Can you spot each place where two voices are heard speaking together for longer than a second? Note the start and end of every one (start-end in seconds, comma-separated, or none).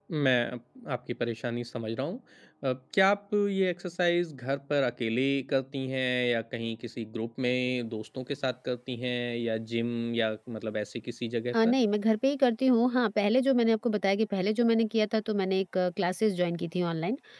none